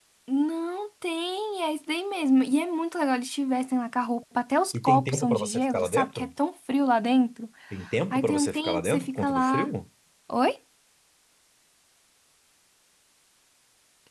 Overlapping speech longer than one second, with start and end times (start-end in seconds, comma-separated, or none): 4.8-6.3, 8.1-9.7